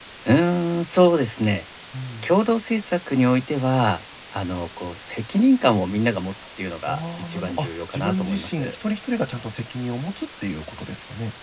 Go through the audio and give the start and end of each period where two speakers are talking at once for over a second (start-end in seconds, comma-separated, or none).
6.9-8.8